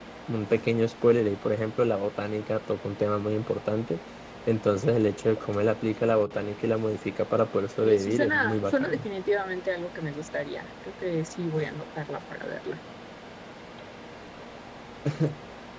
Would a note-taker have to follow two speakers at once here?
Yes, from 7.8 s

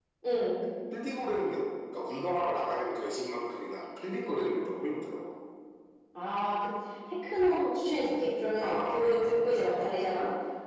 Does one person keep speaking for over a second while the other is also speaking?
Yes, from 8.6 s

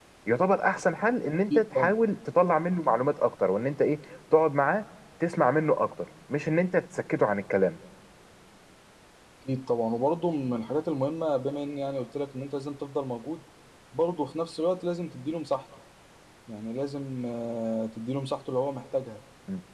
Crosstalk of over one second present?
No

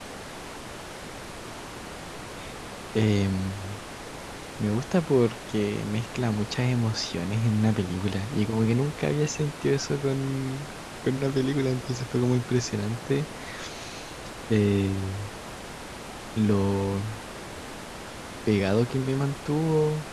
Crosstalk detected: No

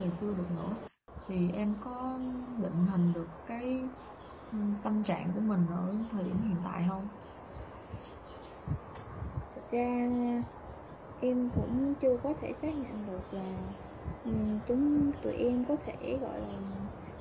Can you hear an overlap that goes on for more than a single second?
No

